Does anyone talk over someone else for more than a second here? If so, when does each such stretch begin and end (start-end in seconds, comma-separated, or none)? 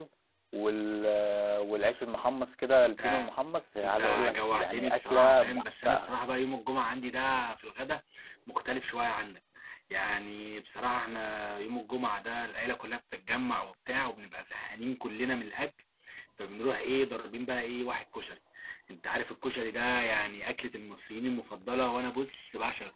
3.8-6.1